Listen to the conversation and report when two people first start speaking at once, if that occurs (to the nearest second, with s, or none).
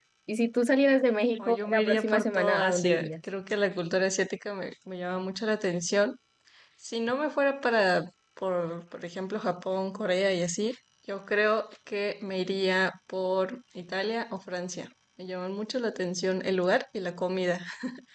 1 s